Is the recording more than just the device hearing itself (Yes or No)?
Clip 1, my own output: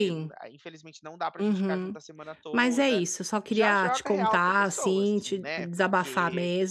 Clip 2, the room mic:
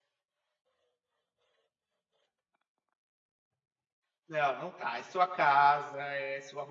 Yes